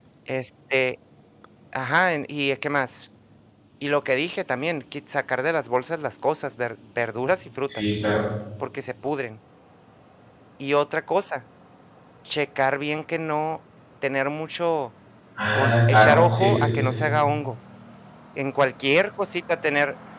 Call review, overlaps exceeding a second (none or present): present